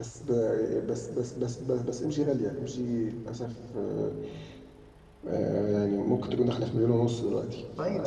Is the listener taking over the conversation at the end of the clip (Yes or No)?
Yes